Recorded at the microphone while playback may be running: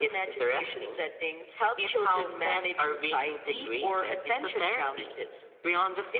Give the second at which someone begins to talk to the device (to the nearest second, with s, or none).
none